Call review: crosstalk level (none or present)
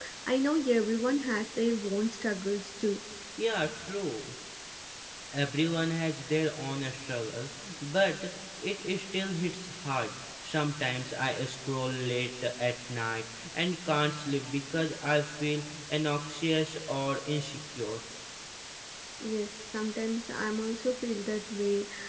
none